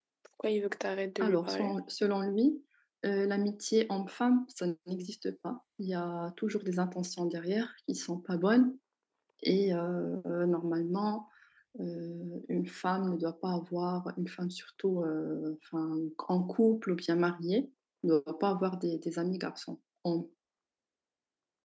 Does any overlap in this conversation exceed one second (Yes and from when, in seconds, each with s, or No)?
No